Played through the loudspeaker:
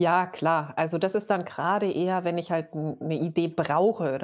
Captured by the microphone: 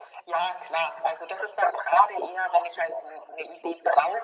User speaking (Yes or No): No